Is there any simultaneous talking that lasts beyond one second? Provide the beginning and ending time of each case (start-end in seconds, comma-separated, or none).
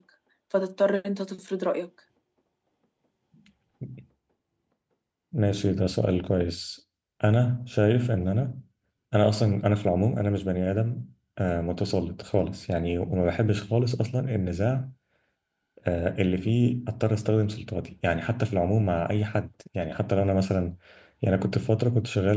none